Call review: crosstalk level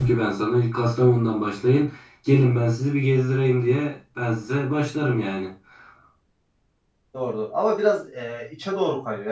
none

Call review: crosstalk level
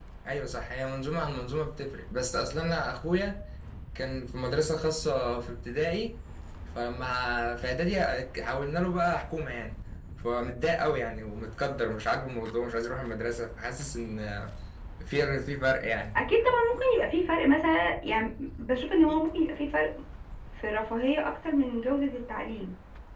none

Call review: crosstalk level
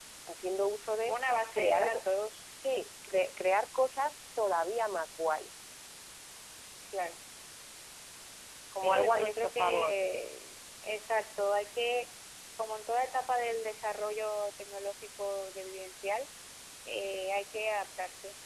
present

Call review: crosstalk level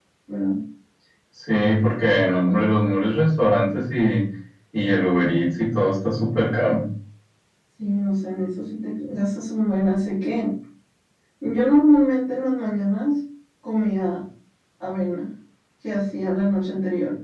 none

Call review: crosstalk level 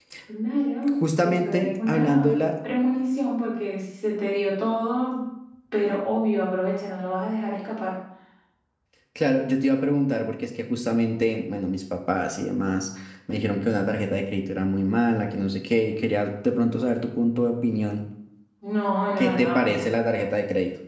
present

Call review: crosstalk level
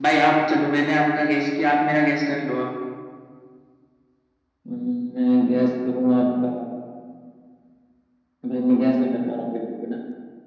none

